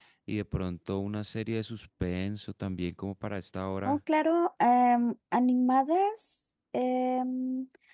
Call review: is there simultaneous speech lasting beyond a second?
No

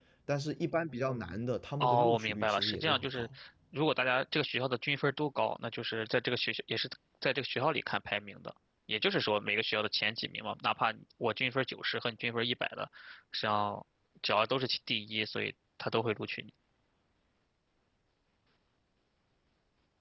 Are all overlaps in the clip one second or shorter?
No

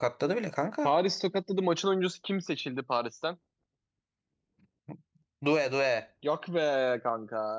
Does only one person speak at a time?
Yes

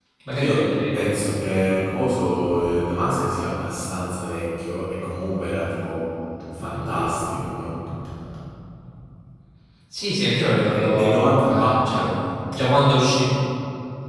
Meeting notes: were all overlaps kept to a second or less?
No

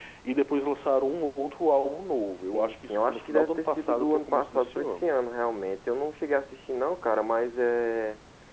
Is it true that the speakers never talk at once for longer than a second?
No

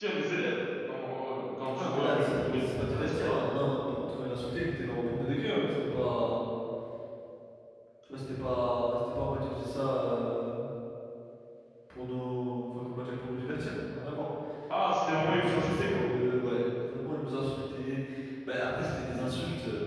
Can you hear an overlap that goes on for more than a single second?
Yes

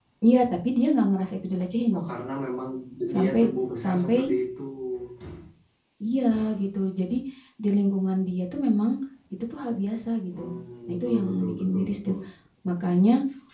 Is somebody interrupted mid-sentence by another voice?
Yes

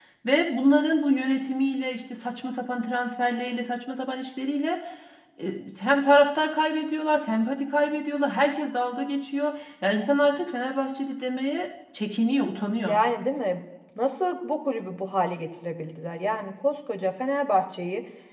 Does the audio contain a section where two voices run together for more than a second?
No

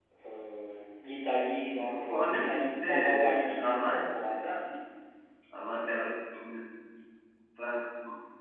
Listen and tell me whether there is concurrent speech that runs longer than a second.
Yes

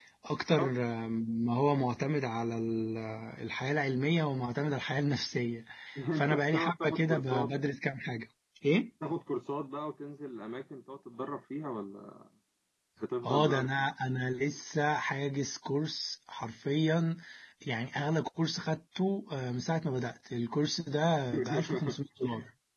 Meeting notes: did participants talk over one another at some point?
Yes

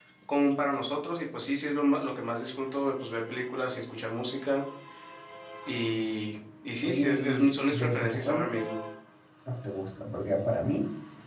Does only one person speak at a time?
No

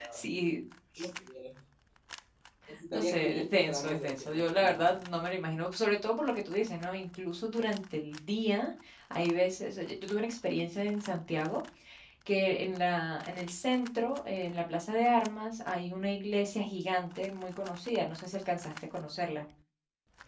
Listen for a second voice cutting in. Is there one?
Yes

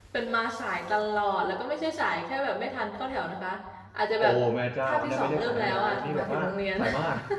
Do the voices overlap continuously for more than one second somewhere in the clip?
Yes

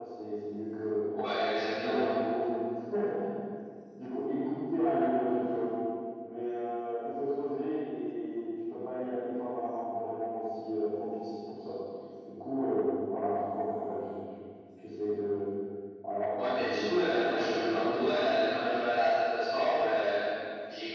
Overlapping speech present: Yes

